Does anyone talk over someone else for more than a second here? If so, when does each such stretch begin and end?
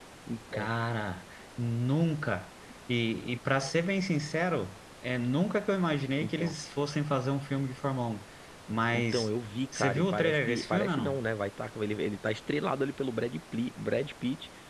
9.8-11.2

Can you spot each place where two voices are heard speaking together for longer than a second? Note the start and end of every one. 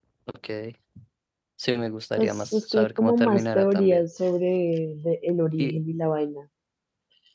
2.2-4.0

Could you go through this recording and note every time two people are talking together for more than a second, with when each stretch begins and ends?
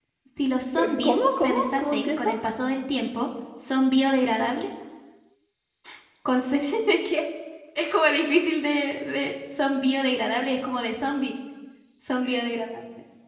0.8-2.3

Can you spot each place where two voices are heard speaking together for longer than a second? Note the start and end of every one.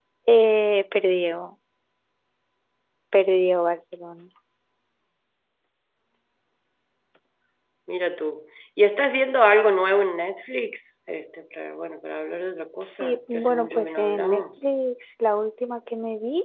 12.8-14.6

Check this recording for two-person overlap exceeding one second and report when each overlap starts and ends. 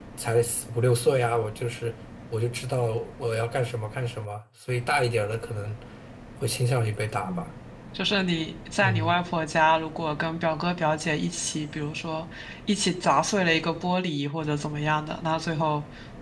none

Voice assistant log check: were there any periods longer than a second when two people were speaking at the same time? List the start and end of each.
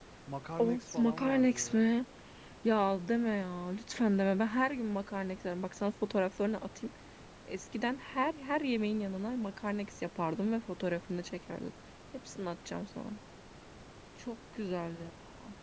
0.6-1.8

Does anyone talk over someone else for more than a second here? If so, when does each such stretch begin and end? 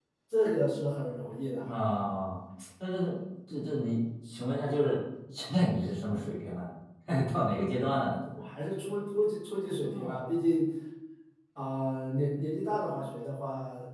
none

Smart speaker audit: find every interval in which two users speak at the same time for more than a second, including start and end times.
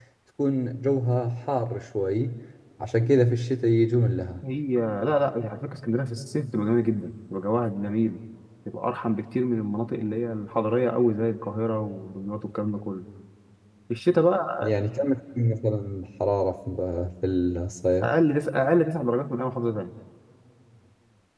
none

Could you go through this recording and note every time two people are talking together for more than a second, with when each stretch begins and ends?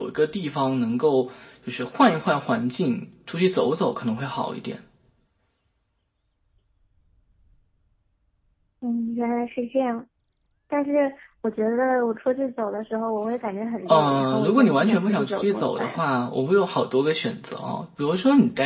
13.9-16.0

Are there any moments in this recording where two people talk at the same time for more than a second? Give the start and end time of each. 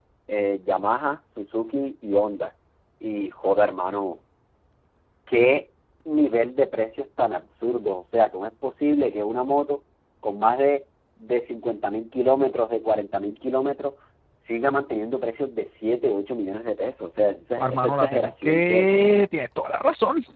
17.6-18.9

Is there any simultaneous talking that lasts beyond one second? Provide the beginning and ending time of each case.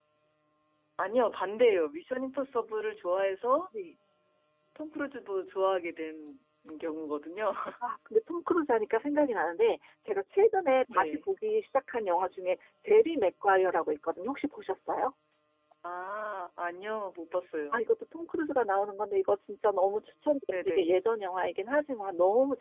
none

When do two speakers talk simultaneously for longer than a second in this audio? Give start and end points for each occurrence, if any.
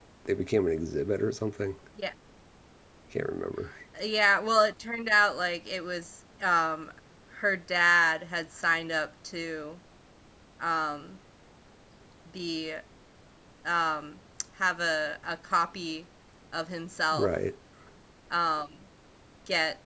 none

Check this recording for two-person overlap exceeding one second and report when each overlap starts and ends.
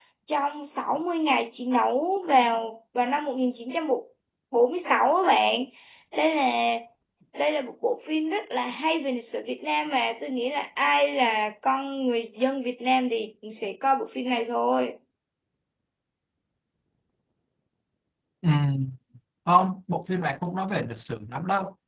none

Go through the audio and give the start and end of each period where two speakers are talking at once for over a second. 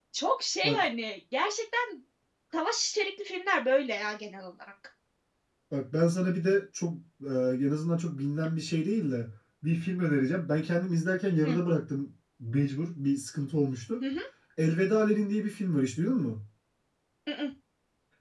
none

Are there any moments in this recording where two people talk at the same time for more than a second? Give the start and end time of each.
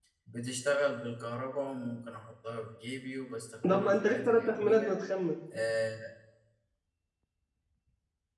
3.7-5.0

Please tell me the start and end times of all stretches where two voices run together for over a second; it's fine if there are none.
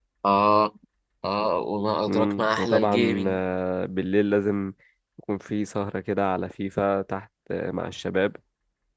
2.0-3.4

